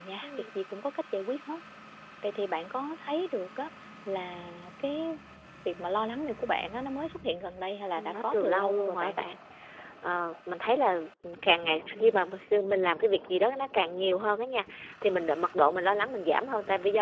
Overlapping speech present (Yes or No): Yes